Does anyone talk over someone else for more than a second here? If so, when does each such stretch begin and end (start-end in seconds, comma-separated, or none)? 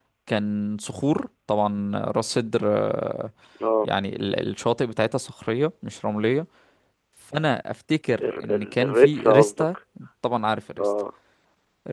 8.2-9.7